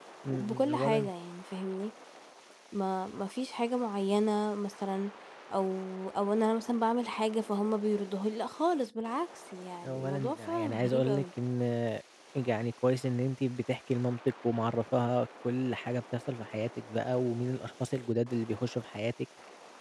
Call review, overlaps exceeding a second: present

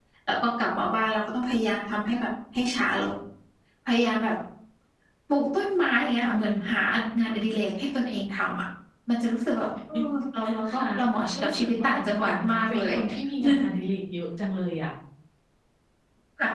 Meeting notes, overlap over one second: present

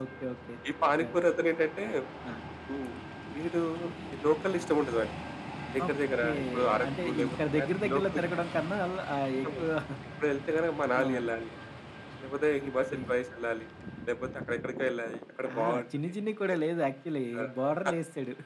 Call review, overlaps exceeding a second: present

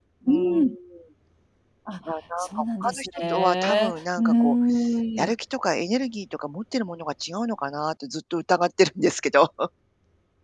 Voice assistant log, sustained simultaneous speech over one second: present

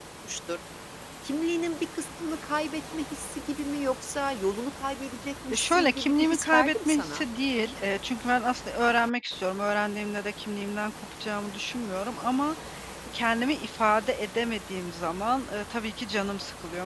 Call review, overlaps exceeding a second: present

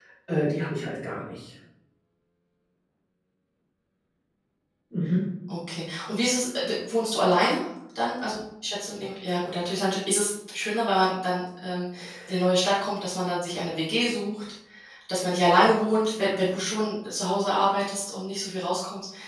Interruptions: none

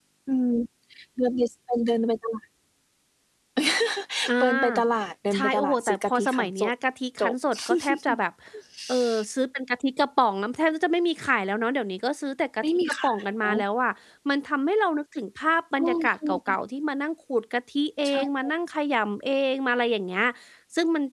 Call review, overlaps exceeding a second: present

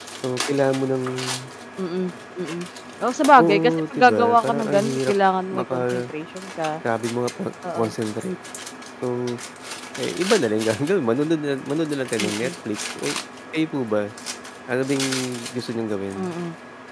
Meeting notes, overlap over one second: present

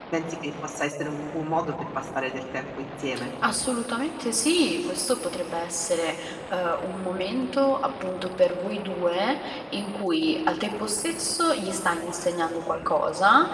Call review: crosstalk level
none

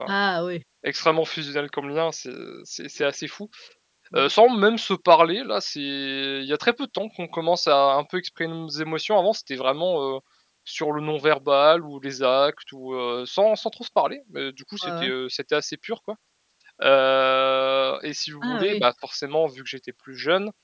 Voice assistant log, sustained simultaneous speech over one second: none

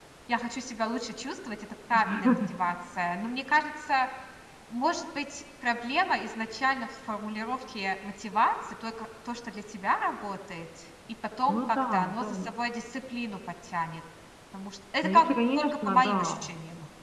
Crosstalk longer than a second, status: present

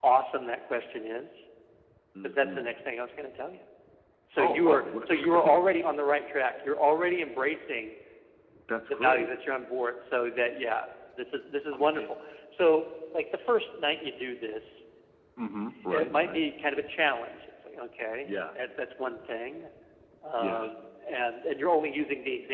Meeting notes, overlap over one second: present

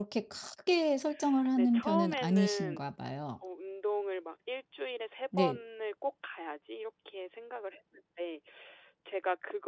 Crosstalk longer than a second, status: present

